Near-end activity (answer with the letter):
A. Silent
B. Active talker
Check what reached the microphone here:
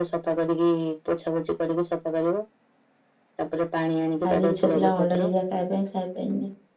B